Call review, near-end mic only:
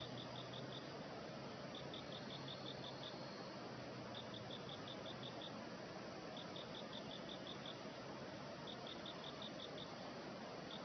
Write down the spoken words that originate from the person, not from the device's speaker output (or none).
none